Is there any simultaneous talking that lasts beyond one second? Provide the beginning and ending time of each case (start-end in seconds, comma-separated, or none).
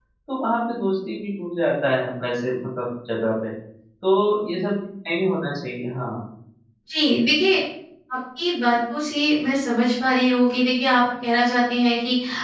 none